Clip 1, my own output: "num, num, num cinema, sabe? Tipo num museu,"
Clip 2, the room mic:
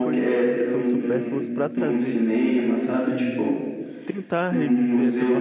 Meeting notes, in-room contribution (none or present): present